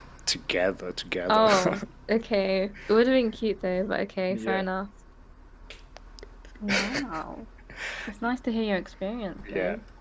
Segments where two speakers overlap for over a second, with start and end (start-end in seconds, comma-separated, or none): none